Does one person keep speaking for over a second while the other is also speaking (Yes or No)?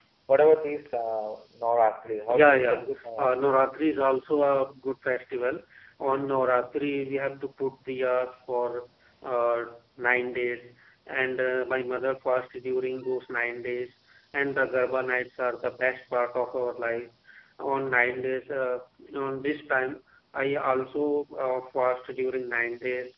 Yes